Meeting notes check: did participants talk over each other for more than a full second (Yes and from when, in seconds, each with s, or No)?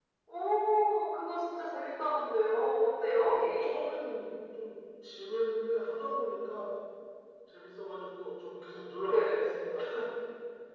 No